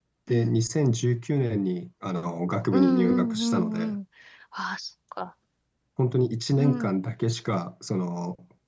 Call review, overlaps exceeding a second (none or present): present